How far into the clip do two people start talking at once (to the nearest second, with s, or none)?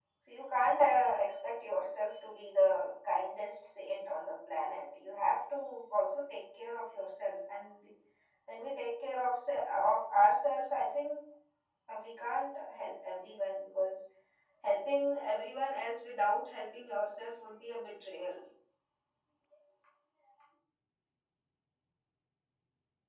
none